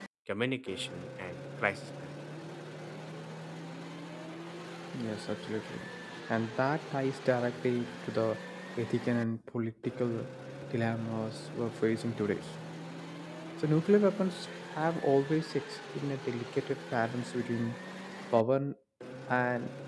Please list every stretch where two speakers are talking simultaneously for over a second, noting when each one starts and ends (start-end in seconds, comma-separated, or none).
none